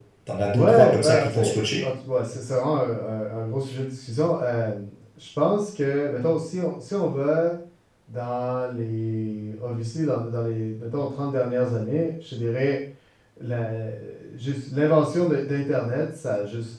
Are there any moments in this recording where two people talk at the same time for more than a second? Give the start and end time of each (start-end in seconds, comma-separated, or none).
0.5-1.8